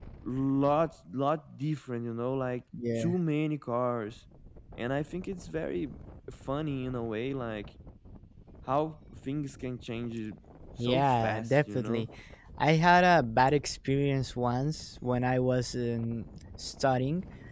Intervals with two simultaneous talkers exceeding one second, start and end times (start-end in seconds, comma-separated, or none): 10.8-12.1